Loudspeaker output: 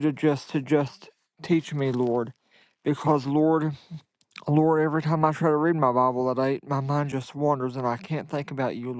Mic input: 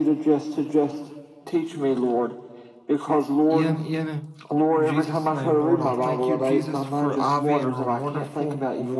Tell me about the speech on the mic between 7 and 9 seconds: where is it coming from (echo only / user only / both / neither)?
both